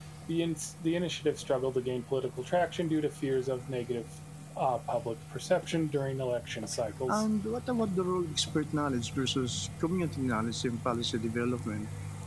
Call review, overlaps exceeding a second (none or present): none